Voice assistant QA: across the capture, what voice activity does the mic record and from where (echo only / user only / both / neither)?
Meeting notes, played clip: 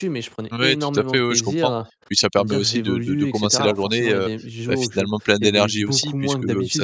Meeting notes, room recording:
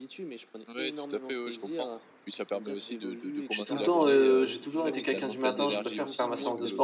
both